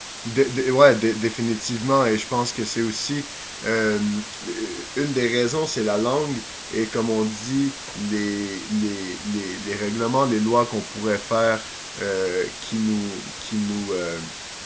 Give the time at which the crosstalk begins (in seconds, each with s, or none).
none